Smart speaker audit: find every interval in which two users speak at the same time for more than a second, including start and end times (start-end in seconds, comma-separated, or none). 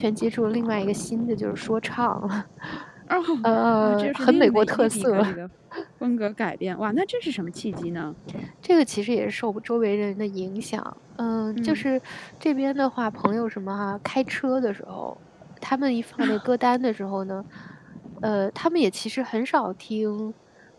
3.8-5.2